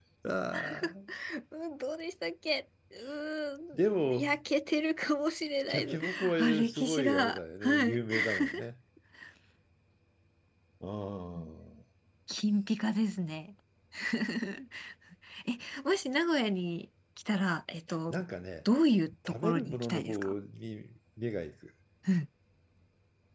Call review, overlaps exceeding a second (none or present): present